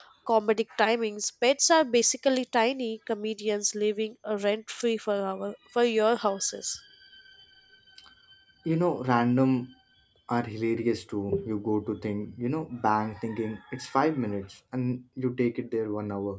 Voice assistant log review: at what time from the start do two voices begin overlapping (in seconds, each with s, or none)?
none